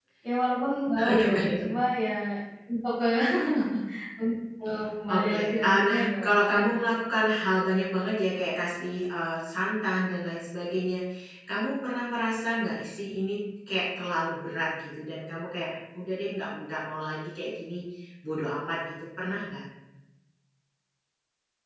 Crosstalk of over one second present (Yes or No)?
Yes